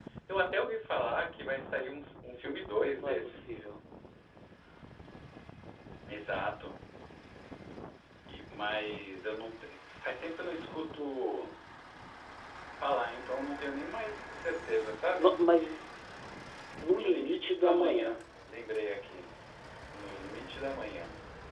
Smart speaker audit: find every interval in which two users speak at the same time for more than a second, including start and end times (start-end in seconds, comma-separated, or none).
16.9-18.2